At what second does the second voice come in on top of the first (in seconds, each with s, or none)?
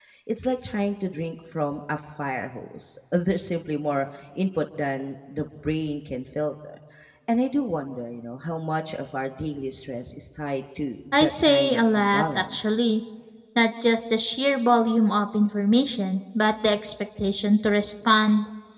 11.1 s